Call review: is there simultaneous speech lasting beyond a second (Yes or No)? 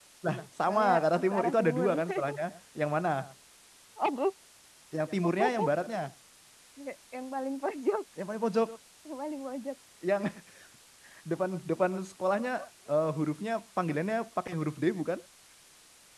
Yes